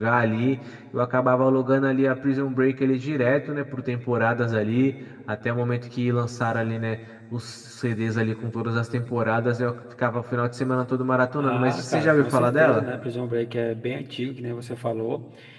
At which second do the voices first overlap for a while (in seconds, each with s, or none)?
11.4 s